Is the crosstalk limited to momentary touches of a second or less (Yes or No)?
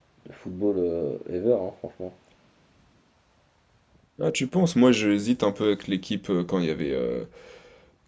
Yes